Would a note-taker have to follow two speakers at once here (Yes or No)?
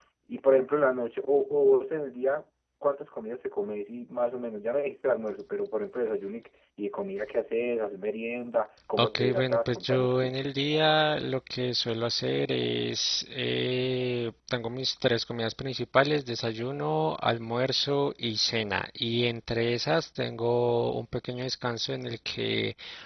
Yes